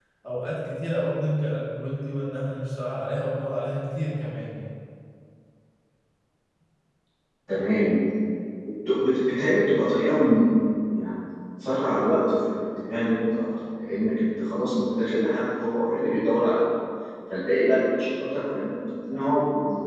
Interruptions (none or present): none